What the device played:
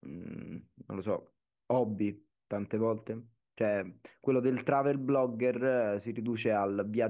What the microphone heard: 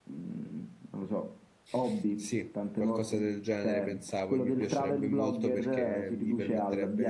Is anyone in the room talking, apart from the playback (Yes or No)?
Yes